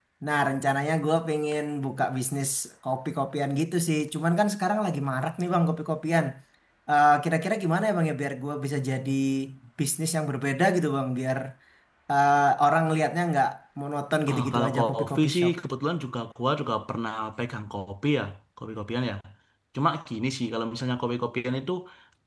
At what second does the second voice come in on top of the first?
14.3 s

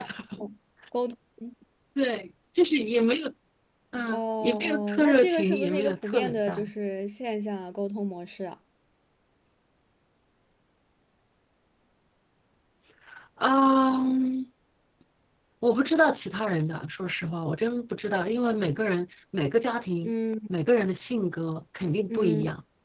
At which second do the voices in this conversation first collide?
4.1 s

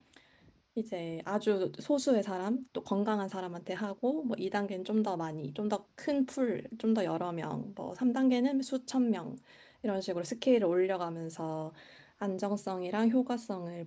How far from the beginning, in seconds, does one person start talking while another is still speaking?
none

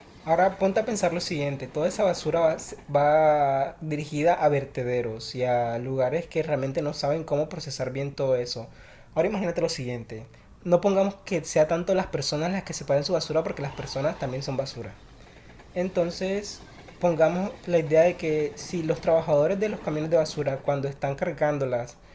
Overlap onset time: none

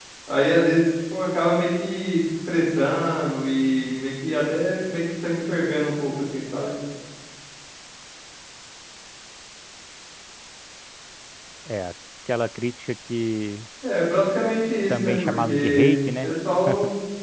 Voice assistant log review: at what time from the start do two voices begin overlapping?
14.9 s

